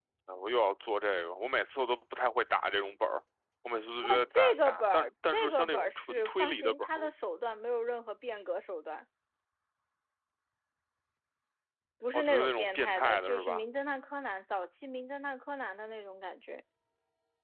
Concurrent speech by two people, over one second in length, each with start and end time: 4.0-6.9, 12.1-13.6

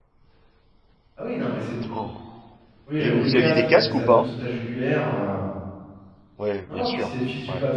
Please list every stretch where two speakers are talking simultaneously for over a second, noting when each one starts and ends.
3.0-4.3

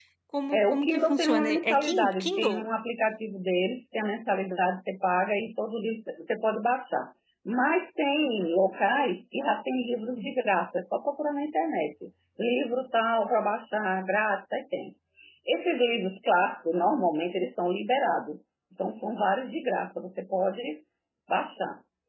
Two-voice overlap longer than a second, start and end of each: 0.5-2.7

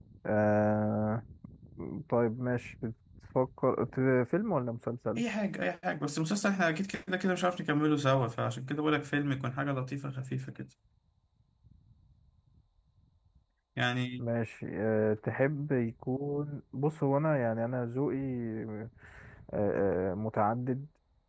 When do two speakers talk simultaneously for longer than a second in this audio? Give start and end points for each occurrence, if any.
none

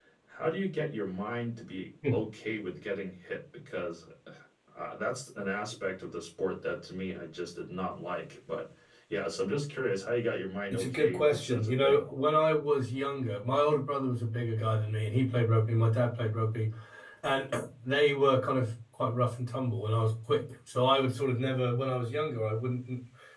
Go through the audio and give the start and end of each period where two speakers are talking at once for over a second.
10.7-12.1

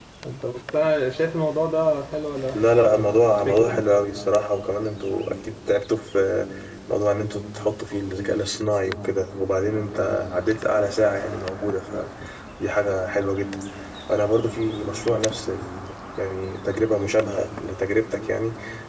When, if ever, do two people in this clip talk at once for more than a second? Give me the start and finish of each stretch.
2.6-3.8

